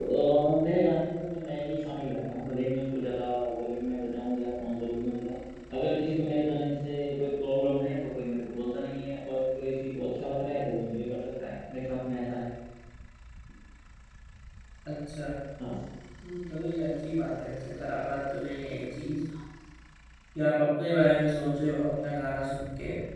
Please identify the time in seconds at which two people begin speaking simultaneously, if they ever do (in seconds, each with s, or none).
none